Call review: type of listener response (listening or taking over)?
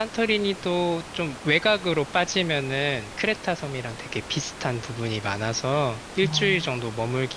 listening